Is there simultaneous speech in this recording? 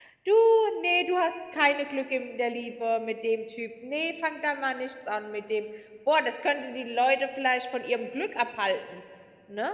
No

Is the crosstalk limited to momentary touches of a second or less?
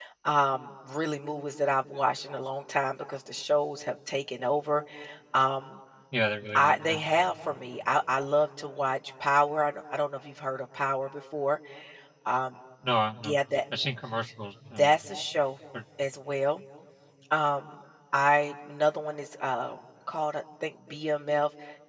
Yes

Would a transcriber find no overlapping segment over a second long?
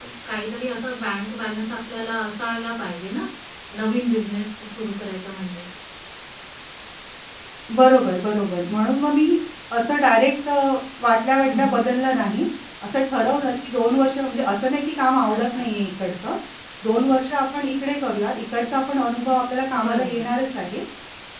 Yes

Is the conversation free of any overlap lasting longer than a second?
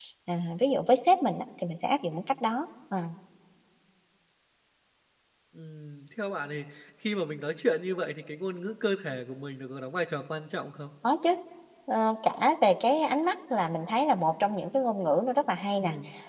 Yes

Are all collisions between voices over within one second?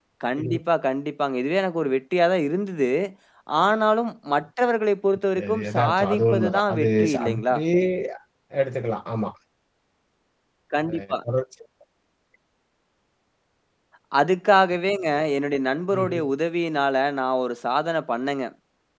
No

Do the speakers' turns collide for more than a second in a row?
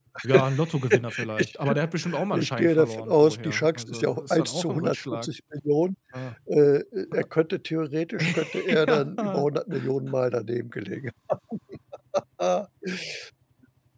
Yes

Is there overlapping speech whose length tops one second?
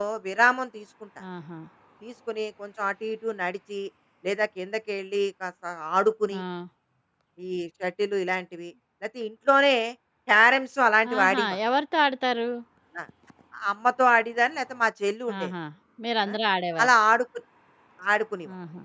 No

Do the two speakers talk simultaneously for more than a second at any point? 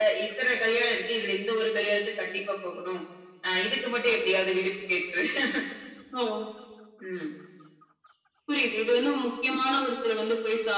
No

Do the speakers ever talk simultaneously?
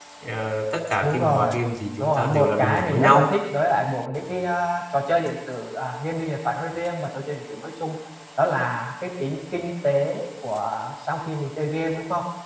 Yes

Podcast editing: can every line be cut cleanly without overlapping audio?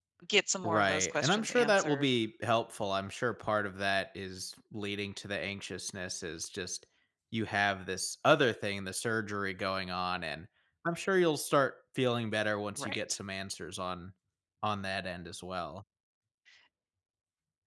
No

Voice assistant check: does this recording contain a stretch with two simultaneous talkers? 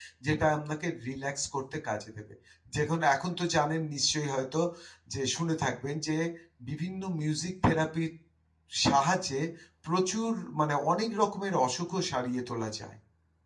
No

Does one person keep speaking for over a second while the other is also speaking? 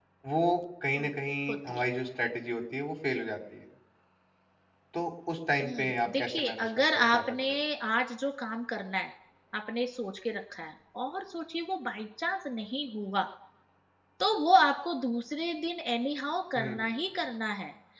Yes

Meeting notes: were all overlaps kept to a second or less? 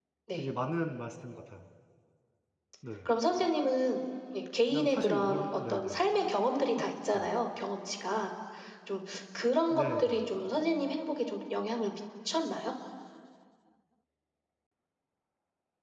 No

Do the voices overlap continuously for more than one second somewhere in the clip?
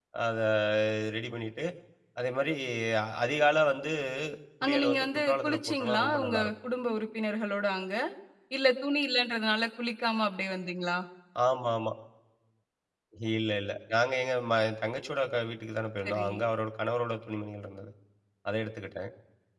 Yes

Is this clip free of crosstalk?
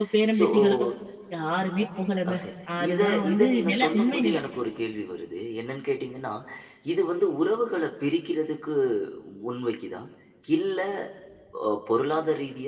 No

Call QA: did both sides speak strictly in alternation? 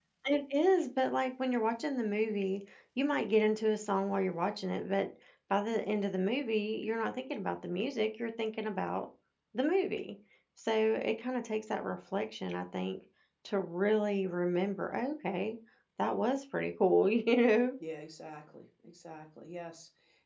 Yes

